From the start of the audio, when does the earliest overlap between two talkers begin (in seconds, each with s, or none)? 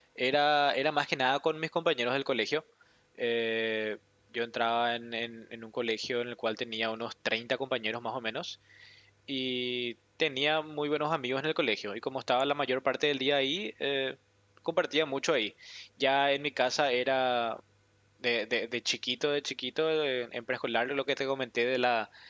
none